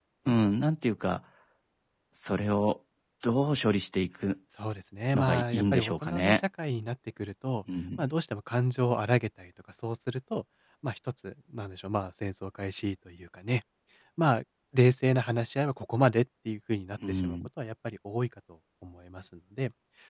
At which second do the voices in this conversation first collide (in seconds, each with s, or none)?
5.1 s